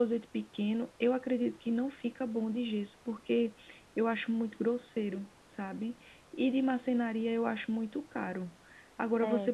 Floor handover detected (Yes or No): No